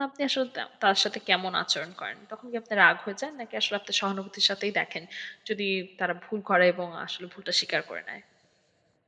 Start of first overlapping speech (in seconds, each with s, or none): none